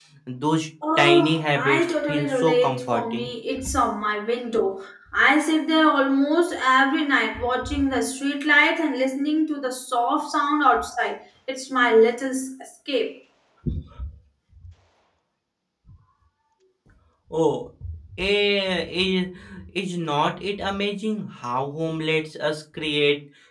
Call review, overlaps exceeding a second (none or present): present